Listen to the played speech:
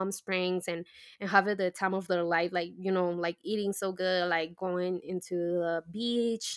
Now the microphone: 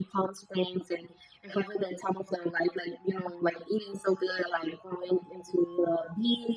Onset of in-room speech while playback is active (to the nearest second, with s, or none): none